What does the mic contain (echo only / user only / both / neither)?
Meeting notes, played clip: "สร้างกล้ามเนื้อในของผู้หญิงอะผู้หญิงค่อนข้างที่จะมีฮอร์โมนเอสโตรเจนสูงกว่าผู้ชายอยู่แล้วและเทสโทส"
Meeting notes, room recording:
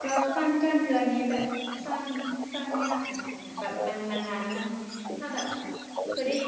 both